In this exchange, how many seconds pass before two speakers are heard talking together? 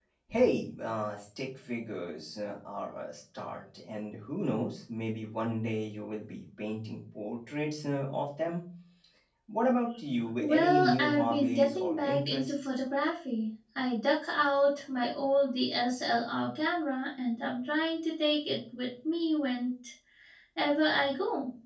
10 s

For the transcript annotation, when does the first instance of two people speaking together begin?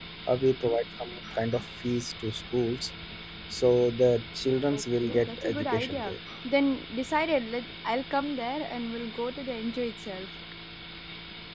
5 s

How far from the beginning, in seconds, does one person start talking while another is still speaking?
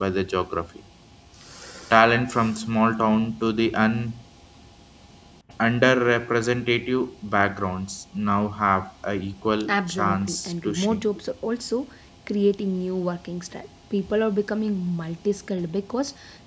10 s

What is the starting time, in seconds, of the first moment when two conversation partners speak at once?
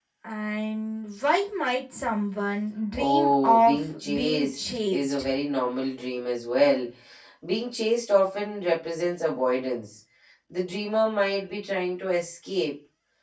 3 s

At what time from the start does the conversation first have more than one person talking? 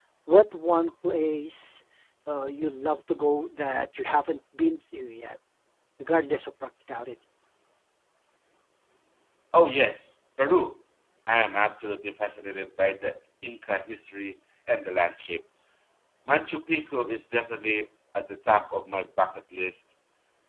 none

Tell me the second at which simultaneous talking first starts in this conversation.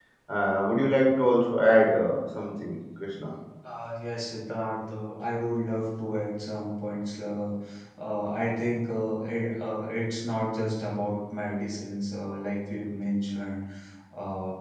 none

